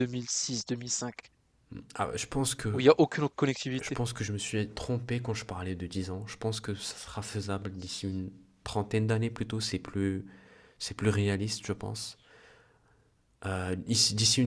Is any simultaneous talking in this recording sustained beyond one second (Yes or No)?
No